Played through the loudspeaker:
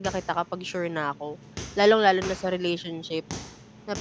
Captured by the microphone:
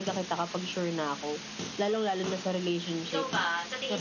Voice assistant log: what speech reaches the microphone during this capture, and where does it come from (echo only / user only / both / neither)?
both